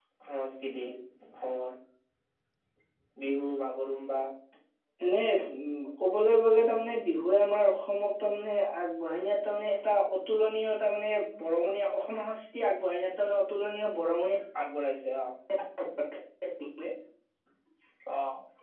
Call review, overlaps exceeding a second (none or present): none